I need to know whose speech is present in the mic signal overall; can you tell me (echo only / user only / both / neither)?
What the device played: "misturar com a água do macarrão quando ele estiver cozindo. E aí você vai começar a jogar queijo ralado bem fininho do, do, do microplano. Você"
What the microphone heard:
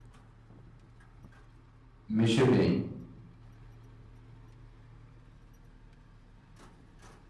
user only